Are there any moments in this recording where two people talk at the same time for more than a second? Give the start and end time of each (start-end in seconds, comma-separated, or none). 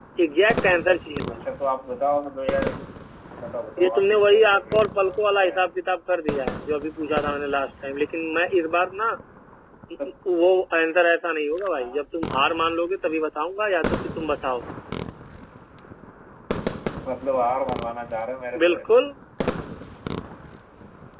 3.8-5.6